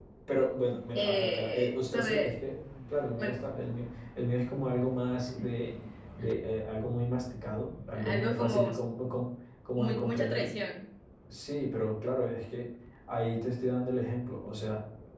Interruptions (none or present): present